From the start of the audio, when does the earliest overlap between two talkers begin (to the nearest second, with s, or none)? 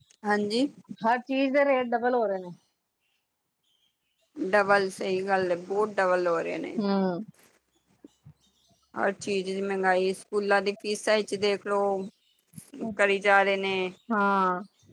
none